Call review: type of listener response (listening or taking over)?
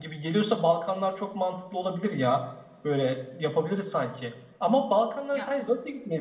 listening